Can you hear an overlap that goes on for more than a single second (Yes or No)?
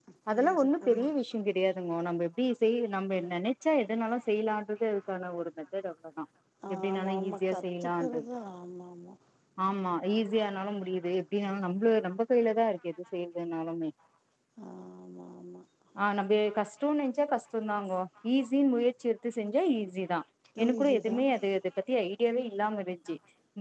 Yes